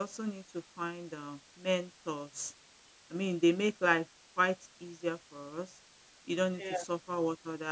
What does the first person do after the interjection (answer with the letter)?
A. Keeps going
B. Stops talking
A